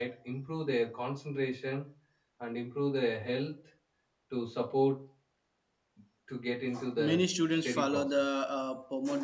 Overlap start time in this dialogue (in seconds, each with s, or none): 7.0 s